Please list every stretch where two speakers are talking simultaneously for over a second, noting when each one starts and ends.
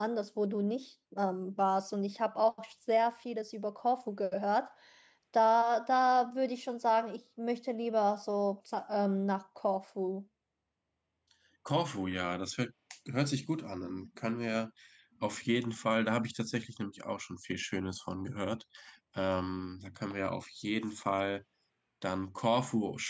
none

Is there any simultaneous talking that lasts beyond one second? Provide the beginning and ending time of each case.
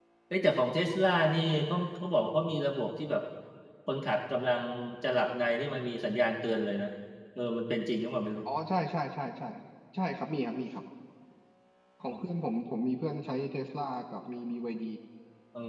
none

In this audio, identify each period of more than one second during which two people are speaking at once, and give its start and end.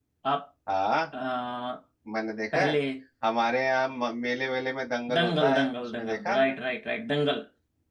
5.1-6.6

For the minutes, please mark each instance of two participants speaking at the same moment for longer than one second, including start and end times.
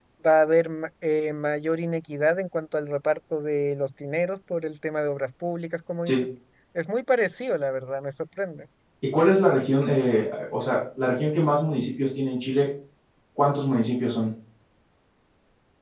none

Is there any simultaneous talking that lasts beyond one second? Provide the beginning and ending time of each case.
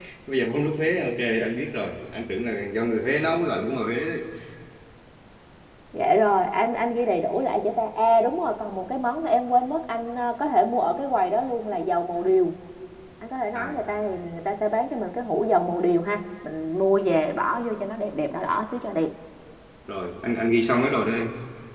none

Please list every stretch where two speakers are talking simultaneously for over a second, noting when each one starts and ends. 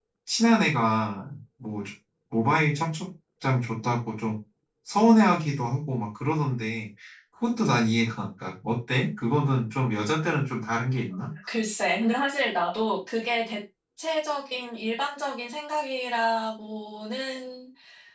none

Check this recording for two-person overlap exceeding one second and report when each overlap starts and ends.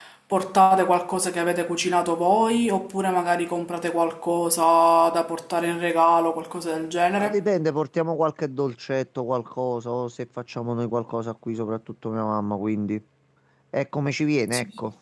none

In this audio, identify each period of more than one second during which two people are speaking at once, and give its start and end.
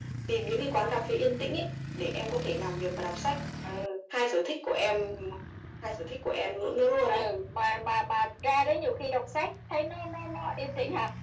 none

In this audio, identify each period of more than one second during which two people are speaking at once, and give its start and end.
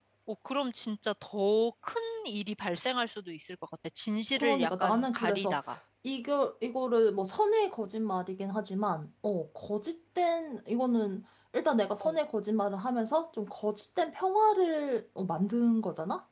4.4-5.6

